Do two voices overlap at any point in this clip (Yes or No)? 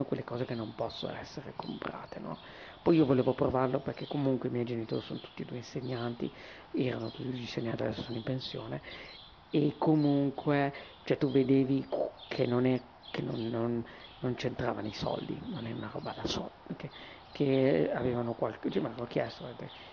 No